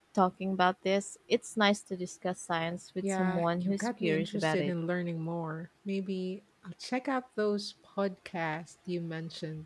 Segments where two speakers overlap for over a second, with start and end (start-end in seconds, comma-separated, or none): 3.0-4.7